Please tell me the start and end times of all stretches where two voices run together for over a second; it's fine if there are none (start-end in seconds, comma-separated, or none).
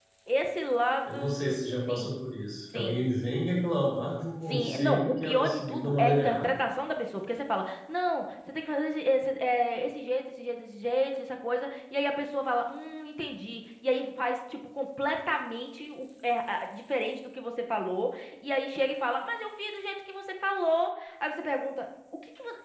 4.5-6.5